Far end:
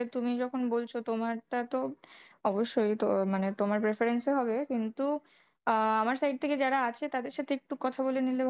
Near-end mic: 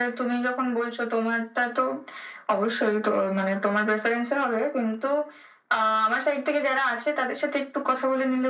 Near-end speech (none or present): none